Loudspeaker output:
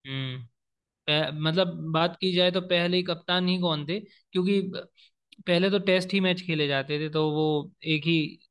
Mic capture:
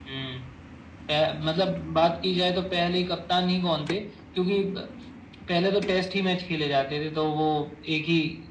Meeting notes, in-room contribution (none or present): none